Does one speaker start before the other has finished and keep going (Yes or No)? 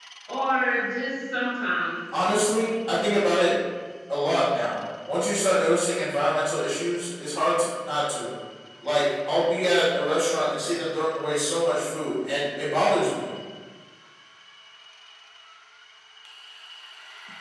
No